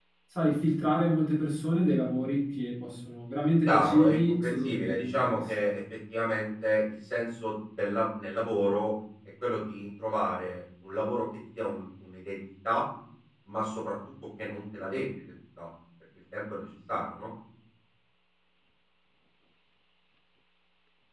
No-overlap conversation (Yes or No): No